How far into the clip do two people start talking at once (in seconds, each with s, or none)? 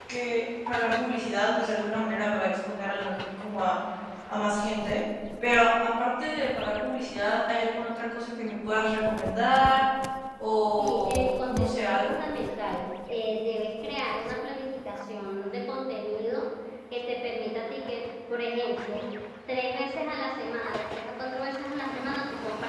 10.8 s